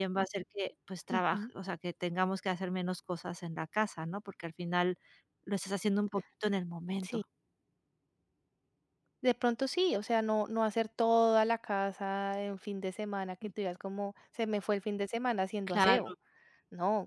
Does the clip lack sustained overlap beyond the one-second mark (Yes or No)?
Yes